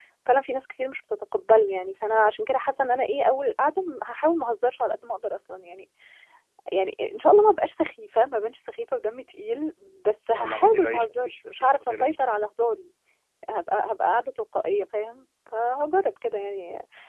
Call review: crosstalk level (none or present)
present